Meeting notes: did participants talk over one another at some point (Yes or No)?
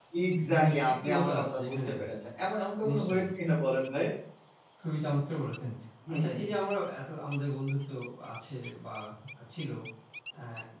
Yes